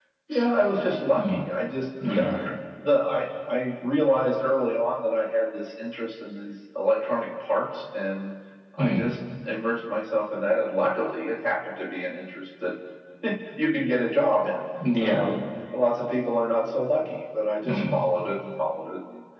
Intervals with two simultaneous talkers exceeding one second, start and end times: none

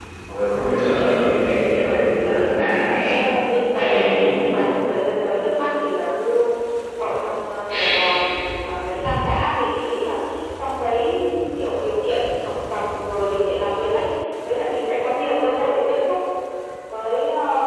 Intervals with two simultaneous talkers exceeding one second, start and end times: 1.9-3.1

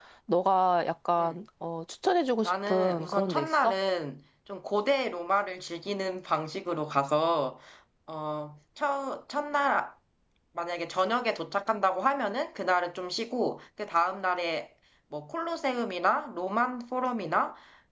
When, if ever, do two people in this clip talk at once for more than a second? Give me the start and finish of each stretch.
2.4-3.8

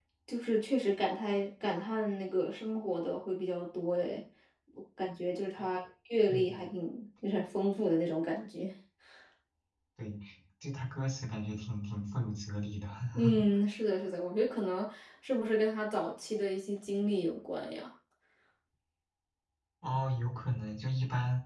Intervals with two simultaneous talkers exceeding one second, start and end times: none

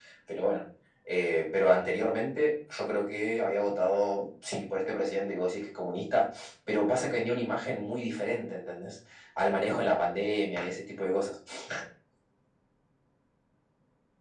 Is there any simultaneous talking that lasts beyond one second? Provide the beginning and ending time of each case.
none

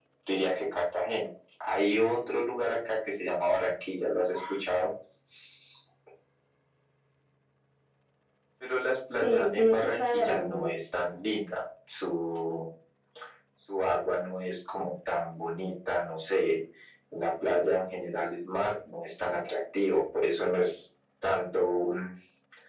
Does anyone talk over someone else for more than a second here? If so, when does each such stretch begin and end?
9.2-10.7

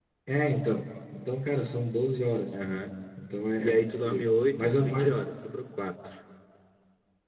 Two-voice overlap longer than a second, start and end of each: 3.6-5.1

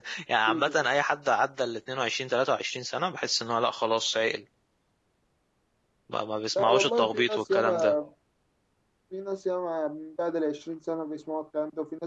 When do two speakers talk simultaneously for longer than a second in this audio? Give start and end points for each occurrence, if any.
6.6-7.9

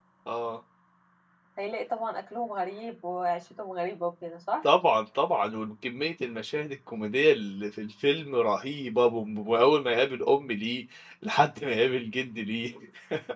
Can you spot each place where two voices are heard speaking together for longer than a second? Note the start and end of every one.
none

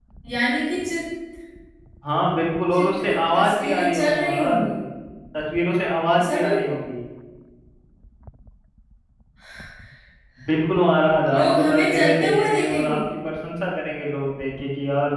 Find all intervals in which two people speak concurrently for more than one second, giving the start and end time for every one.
2.7-4.6, 11.3-13.0

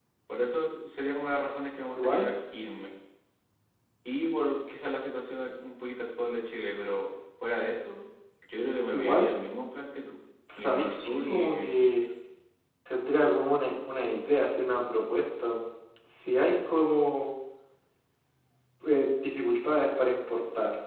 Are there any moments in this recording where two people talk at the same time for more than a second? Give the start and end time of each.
10.6-11.9

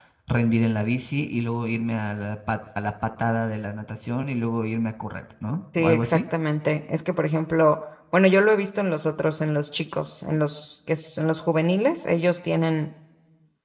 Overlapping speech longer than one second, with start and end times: none

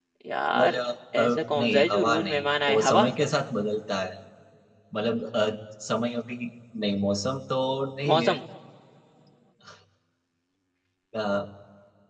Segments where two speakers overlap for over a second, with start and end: 1.2-3.1

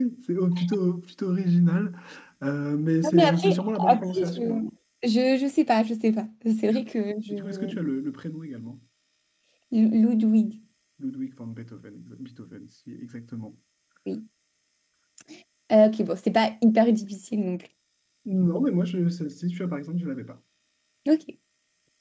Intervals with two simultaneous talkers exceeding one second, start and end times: 3.0-4.6

